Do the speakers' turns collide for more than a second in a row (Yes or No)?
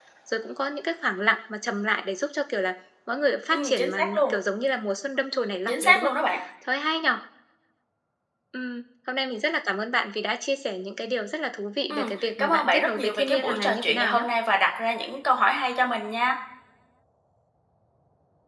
Yes